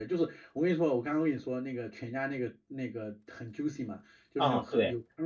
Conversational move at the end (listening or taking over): listening